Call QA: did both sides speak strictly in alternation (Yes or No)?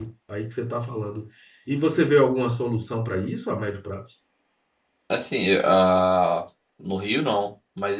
Yes